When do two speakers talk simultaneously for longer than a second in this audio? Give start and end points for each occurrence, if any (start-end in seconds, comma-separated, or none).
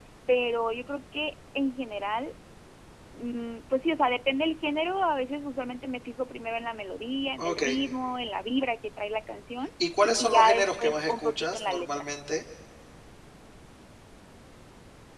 10.2-12.1